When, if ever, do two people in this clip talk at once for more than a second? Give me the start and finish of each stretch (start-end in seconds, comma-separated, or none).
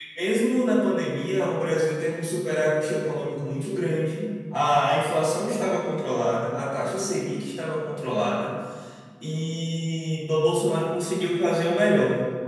none